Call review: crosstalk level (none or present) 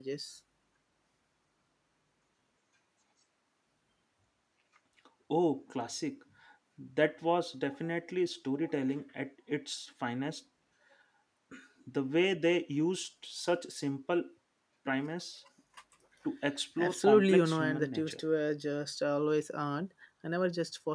present